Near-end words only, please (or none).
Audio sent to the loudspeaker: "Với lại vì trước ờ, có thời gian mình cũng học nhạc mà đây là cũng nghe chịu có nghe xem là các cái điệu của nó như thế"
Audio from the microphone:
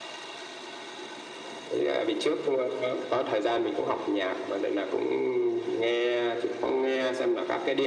none